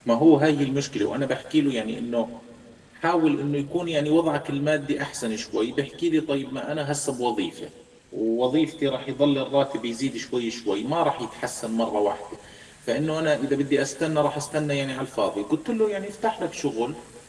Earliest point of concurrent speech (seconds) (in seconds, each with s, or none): none